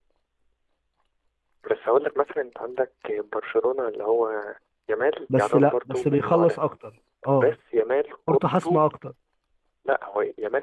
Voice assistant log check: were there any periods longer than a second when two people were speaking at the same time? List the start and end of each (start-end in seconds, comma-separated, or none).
5.3-6.6